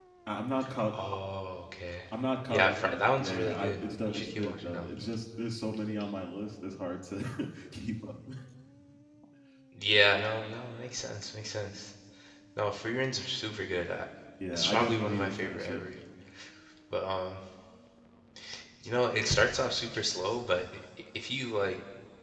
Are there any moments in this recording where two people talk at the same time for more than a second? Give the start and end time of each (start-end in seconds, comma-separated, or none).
2.5-5.0, 14.5-15.8